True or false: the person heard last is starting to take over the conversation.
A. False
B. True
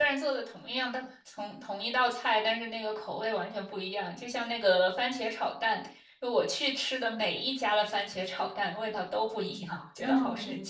B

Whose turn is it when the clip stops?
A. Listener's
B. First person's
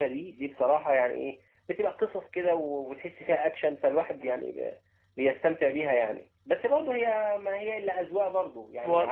A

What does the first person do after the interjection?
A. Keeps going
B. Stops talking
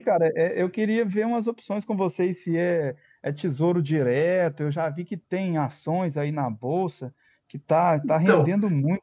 A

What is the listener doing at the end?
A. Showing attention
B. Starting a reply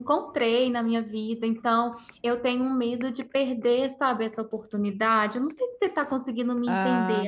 B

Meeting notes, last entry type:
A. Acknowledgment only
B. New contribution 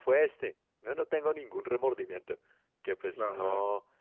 A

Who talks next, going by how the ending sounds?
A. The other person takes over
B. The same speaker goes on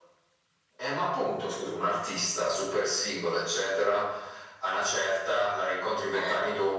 B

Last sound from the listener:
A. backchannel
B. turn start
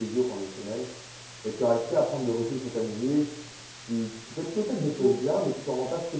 A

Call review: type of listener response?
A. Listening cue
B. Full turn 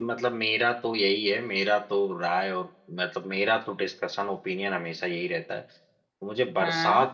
A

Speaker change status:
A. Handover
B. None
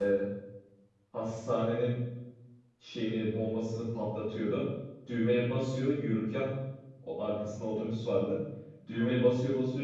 B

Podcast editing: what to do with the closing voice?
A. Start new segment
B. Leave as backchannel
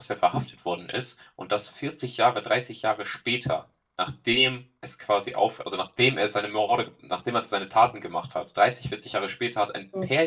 B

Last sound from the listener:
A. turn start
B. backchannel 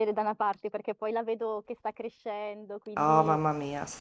A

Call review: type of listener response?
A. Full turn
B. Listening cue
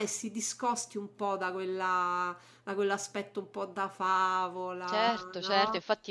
A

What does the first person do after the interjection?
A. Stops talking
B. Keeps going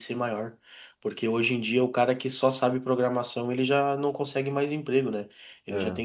B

